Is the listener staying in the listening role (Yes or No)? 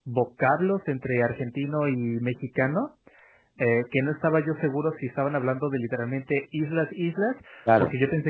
Yes